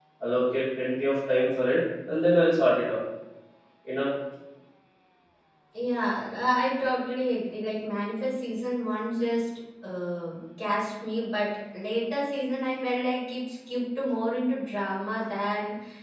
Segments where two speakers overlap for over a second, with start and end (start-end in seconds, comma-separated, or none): none